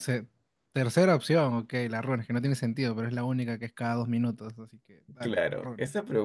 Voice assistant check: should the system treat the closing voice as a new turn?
Yes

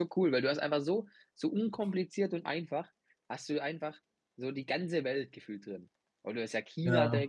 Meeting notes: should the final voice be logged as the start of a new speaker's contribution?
No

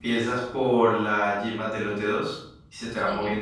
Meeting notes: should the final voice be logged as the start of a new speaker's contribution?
No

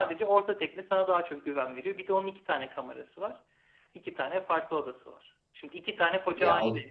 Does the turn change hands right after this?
No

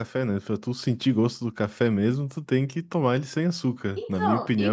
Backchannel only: No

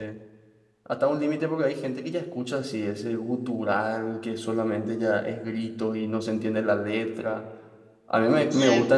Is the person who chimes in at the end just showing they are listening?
Yes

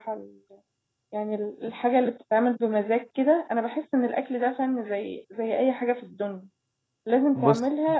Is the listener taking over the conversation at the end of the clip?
No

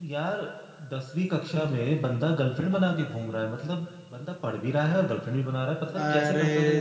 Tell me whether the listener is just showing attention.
No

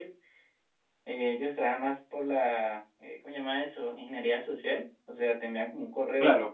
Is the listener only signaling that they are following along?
Yes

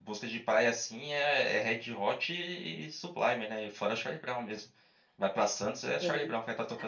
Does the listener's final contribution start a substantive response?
Yes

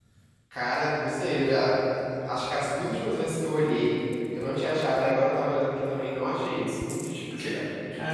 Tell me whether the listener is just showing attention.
No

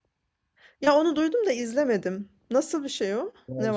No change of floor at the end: No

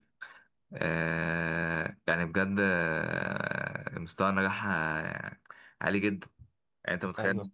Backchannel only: Yes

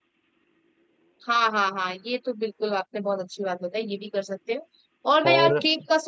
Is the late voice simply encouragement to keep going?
Yes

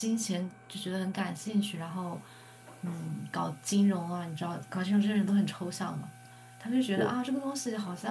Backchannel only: Yes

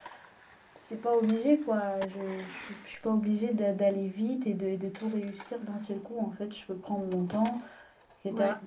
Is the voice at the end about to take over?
No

